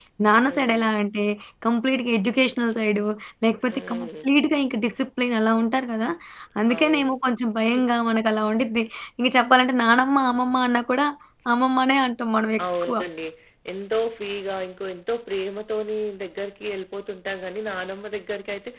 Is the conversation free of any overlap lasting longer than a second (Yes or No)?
Yes